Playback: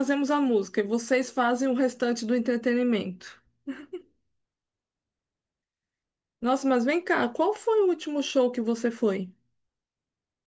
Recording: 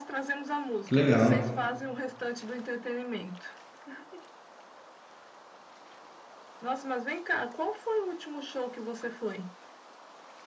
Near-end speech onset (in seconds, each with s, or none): 0.8 s